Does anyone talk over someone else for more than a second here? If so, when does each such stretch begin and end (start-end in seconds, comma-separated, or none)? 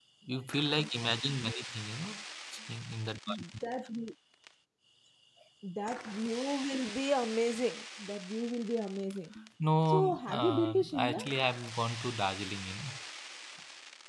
9.9-11.4